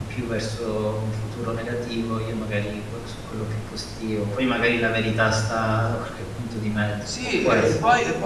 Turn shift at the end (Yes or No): Yes